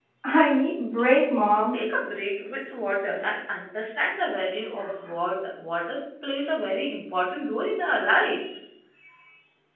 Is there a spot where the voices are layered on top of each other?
No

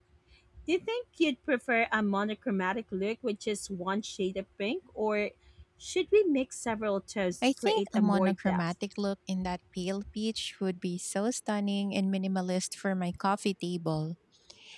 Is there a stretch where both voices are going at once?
Yes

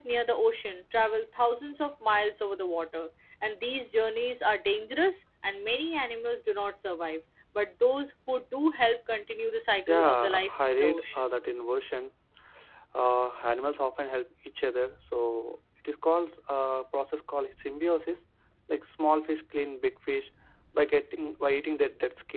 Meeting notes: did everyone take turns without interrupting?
No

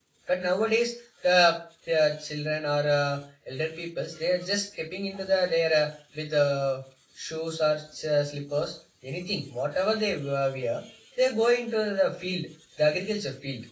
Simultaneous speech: No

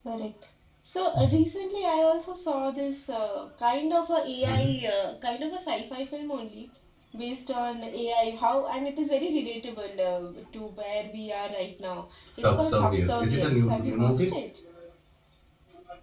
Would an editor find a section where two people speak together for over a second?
Yes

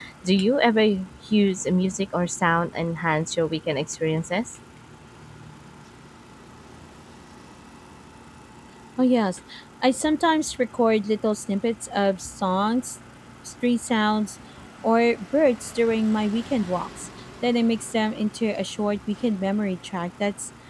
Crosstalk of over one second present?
No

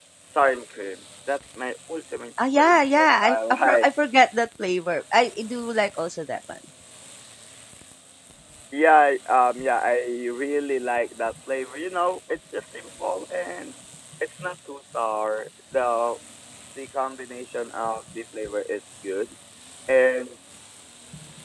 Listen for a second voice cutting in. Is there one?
Yes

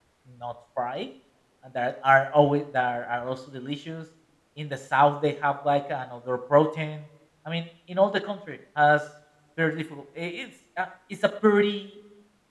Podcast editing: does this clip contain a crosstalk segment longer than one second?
No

